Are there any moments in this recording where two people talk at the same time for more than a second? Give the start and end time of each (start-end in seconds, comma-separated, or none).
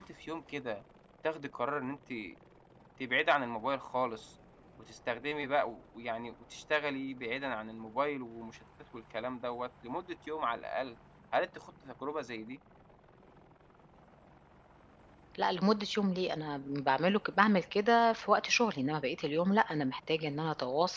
none